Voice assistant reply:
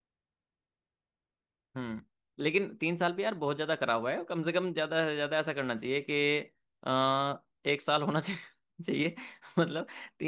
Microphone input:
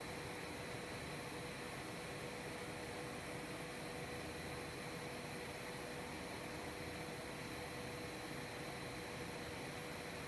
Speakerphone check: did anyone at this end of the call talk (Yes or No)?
No